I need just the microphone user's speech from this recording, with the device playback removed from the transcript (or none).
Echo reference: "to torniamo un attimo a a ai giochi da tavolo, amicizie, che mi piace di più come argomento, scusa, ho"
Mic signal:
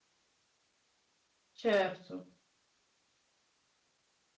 Certo.